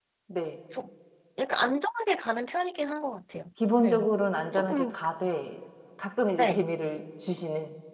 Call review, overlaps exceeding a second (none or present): none